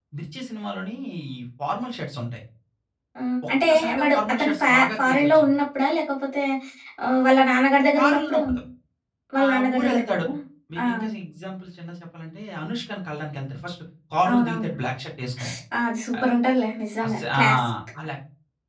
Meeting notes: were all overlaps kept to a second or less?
No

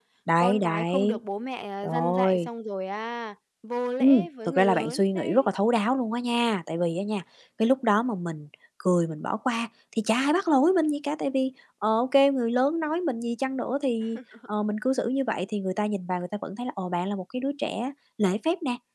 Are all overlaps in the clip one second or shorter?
No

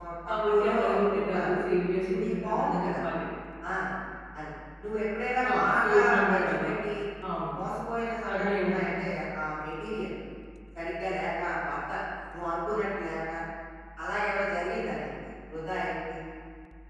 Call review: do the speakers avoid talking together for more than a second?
No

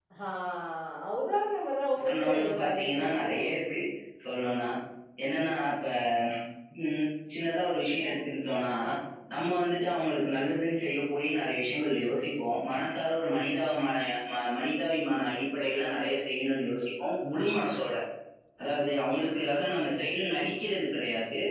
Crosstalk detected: Yes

